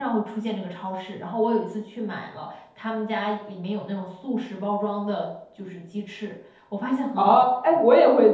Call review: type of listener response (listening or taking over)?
taking over